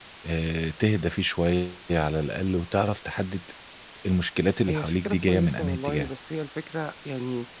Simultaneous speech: Yes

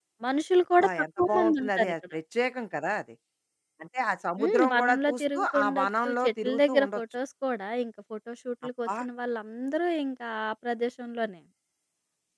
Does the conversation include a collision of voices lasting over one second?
Yes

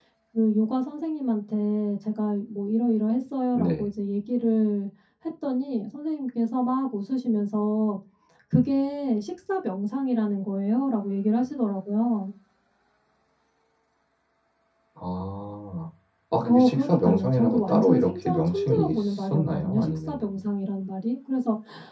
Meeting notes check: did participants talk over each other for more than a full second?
Yes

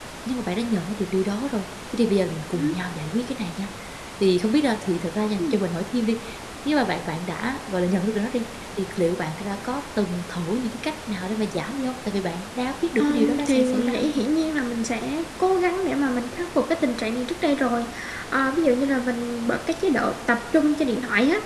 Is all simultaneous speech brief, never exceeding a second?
No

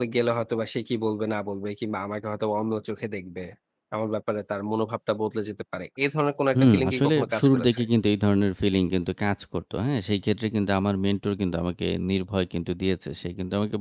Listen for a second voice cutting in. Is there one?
Yes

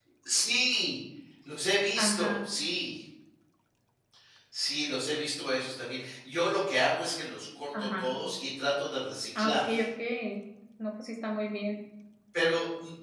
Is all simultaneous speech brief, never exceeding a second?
Yes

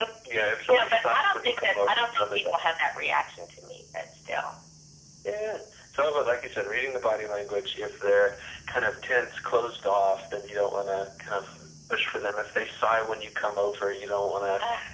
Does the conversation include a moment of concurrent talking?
Yes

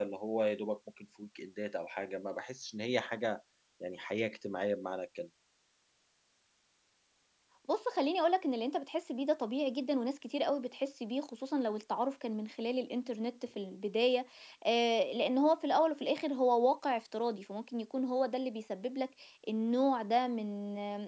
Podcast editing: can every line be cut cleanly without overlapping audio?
Yes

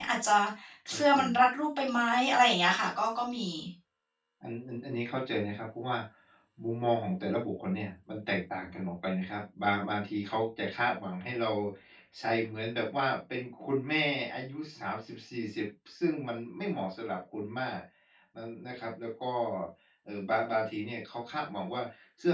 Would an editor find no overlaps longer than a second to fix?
Yes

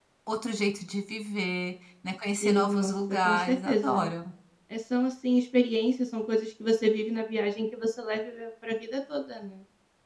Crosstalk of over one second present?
Yes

